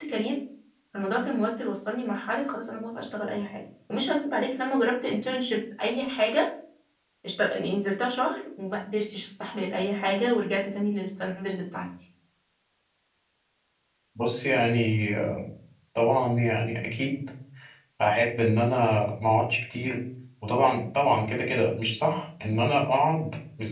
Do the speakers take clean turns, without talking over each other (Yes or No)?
Yes